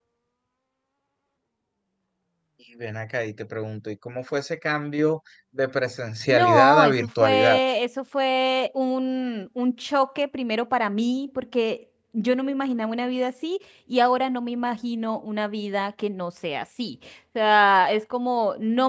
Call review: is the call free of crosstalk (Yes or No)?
No